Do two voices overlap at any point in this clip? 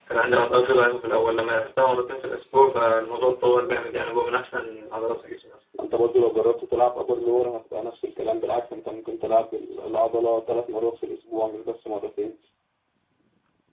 No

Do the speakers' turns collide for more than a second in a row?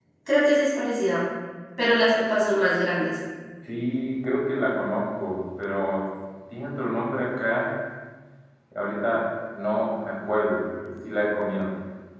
No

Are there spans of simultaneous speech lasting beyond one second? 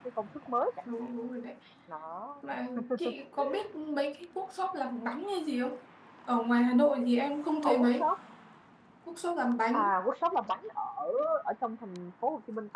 No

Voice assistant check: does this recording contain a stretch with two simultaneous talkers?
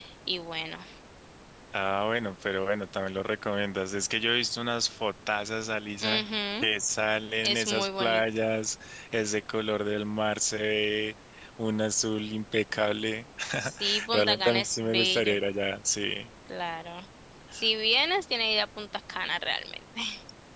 Yes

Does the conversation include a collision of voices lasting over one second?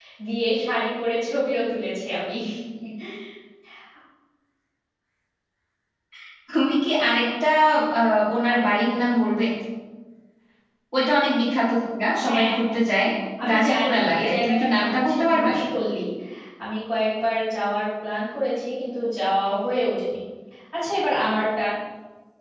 Yes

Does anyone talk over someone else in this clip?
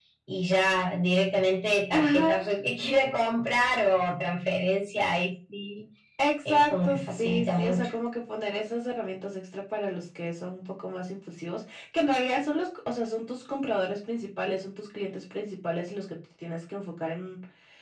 Yes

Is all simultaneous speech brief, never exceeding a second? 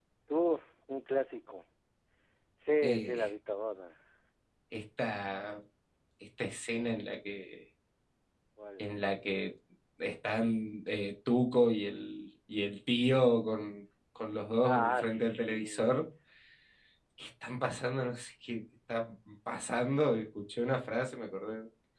No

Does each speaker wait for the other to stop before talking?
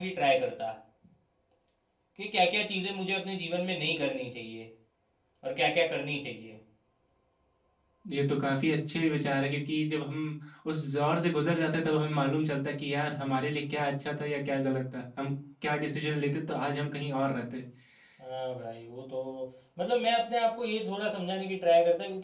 Yes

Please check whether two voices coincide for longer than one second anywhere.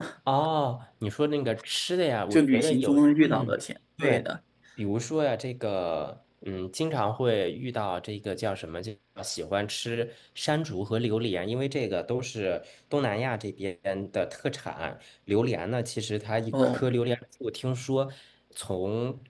Yes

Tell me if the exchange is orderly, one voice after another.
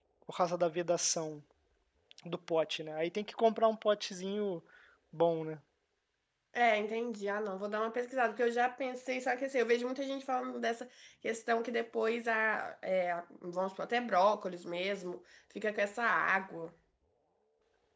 Yes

